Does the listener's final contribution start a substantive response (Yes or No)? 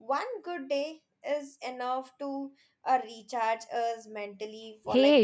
Yes